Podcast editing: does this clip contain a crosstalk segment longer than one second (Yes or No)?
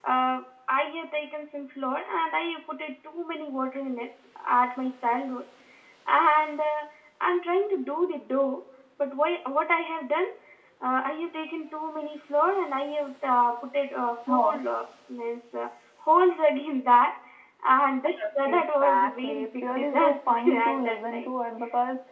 Yes